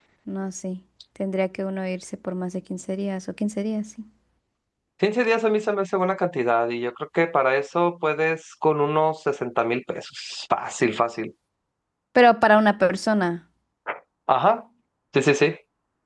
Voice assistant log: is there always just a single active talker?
Yes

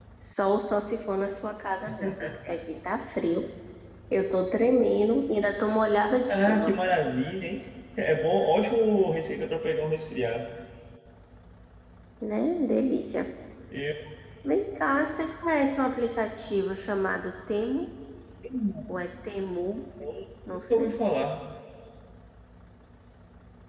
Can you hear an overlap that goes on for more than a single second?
No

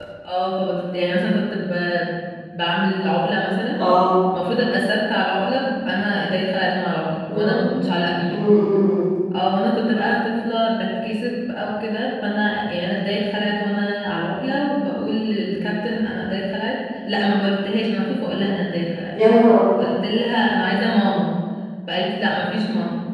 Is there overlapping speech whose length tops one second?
No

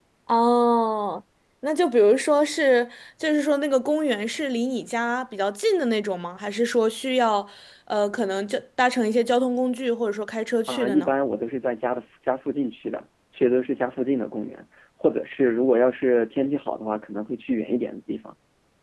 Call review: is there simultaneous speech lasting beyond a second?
No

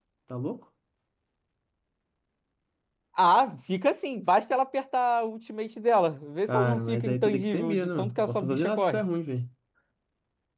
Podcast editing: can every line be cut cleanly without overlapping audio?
No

